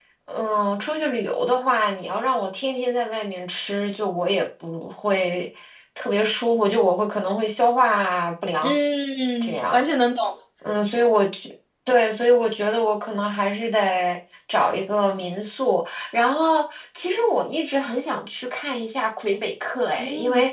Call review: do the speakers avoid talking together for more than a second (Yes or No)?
Yes